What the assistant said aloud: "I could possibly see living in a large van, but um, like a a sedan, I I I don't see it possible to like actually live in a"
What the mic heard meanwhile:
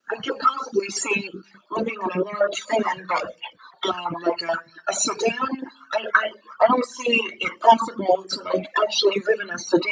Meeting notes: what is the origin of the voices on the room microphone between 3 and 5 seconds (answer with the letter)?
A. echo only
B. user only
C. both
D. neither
A